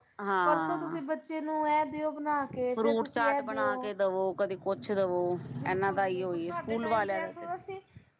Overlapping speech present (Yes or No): Yes